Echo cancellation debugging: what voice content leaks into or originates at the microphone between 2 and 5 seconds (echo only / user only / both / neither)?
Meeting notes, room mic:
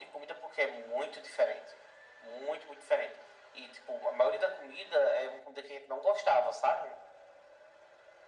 echo only